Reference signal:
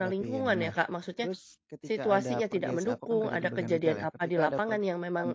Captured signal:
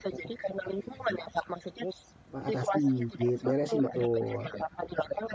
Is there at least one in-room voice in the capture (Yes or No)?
Yes